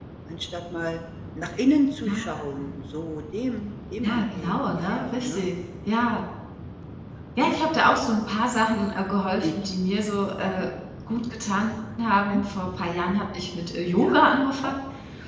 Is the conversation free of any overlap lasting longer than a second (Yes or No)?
No